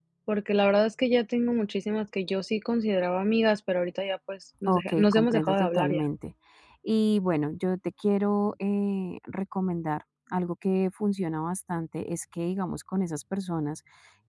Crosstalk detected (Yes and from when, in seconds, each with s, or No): Yes, from 4.7 s